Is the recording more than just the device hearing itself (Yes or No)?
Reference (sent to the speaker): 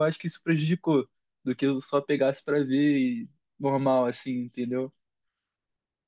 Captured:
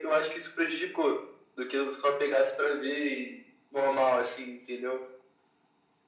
No